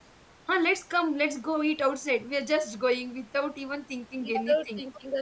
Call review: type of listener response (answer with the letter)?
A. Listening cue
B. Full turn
B